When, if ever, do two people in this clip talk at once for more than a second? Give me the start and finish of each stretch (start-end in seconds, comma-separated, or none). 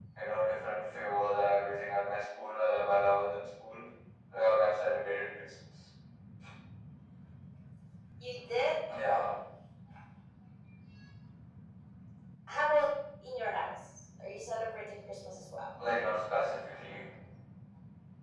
none